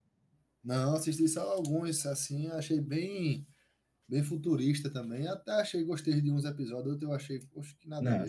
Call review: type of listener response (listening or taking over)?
taking over